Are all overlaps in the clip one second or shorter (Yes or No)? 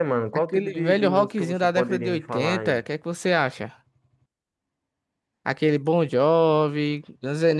No